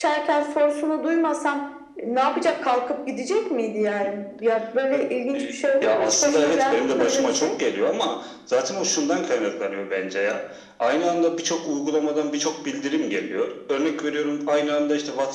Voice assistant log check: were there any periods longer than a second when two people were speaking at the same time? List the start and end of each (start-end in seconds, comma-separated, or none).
5.8-7.5